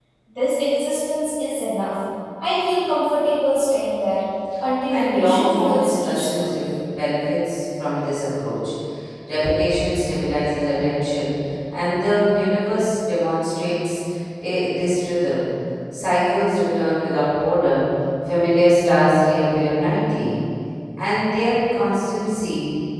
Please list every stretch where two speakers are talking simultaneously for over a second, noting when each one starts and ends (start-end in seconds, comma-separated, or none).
4.9-6.5